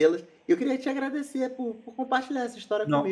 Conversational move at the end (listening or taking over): listening